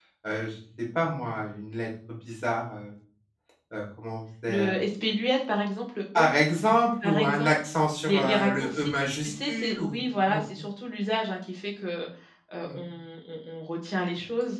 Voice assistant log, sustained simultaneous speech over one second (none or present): present